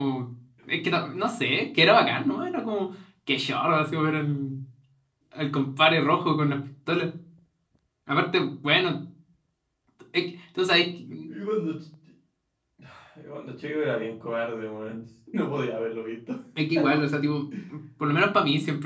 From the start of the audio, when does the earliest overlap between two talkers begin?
none

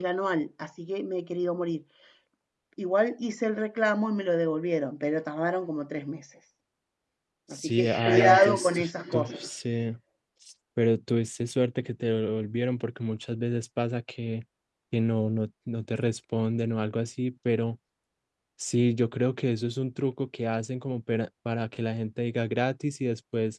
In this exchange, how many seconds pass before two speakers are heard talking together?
8 s

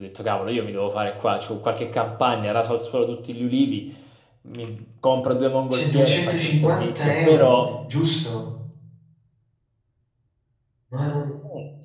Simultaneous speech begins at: 6 s

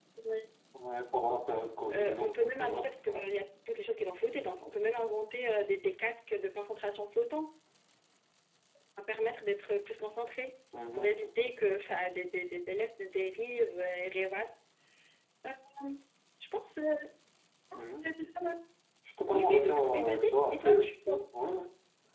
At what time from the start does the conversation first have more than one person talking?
2 s

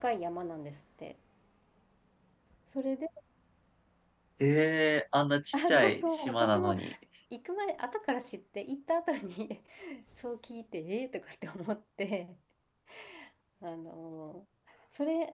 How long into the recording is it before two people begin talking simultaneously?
6 s

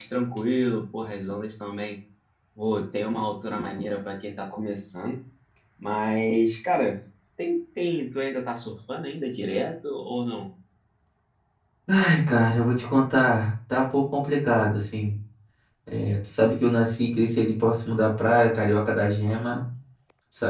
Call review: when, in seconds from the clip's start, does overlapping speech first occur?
none

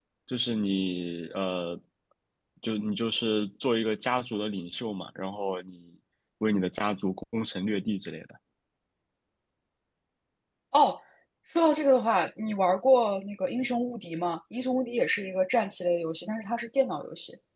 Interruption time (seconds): none

